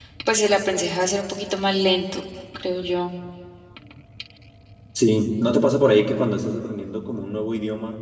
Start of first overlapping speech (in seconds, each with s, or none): none